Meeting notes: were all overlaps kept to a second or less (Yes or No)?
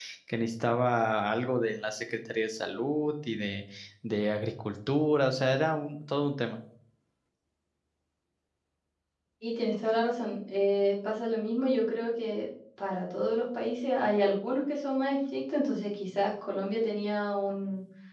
Yes